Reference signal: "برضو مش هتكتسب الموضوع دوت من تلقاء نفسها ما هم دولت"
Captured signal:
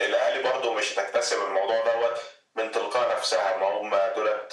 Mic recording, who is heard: echo only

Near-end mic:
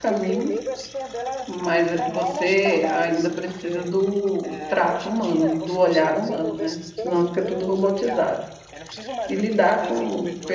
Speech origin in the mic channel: both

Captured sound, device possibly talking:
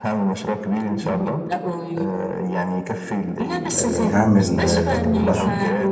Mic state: both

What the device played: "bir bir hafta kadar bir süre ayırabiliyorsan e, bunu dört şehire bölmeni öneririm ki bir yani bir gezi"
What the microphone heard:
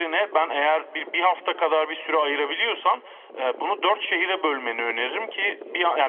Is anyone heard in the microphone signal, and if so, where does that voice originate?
echo only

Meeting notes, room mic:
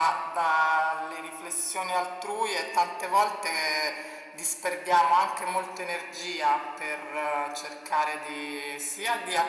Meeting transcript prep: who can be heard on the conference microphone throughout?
echo only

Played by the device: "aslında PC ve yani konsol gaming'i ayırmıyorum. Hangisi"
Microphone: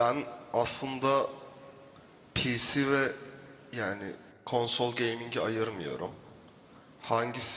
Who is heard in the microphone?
echo only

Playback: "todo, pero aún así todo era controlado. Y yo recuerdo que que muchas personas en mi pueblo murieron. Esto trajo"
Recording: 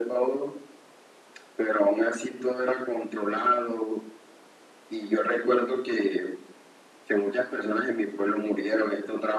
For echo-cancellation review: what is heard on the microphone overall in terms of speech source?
echo only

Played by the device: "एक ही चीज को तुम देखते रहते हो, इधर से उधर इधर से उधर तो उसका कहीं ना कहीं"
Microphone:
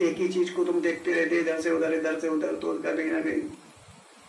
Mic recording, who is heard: echo only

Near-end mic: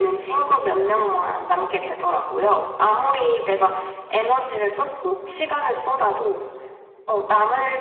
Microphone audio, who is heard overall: both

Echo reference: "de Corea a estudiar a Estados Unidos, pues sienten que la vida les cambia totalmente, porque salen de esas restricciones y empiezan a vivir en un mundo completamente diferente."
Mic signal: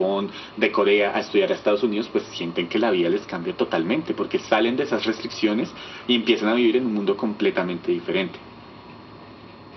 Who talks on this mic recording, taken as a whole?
echo only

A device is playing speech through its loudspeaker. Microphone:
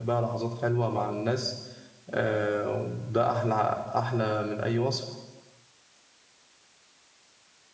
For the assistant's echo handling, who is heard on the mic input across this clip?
user only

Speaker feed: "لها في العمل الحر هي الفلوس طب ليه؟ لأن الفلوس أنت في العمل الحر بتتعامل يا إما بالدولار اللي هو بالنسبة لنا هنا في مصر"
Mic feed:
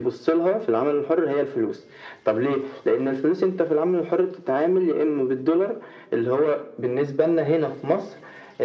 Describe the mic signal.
echo only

